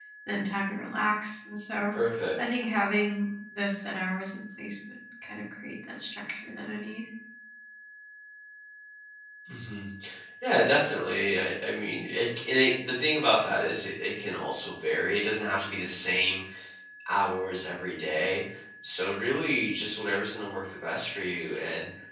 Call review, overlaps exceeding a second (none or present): none